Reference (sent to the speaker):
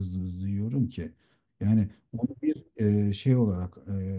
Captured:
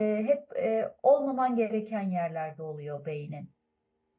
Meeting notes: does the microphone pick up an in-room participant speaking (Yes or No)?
Yes